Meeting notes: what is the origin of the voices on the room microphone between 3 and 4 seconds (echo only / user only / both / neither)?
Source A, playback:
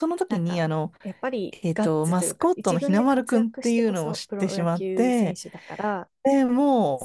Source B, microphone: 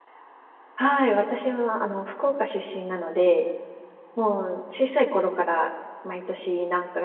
user only